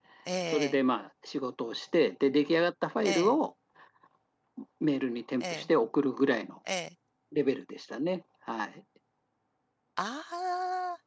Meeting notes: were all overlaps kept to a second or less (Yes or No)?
Yes